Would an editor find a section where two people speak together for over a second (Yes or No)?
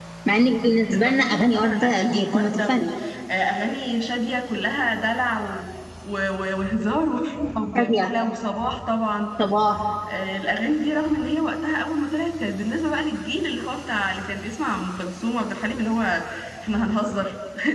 Yes